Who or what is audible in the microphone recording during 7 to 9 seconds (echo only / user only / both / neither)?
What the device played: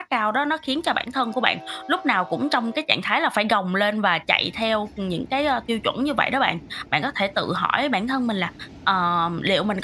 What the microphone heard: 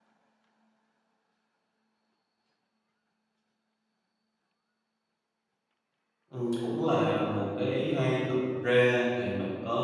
user only